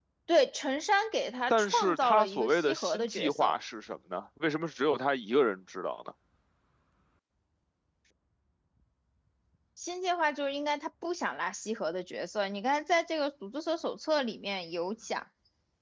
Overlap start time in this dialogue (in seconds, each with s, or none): 1.5 s